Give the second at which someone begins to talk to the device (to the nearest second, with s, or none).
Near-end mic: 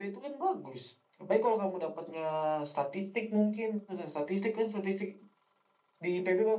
none